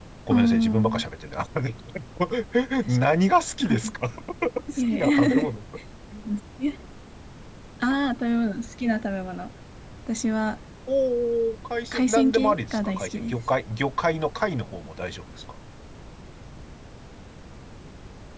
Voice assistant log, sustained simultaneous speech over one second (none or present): present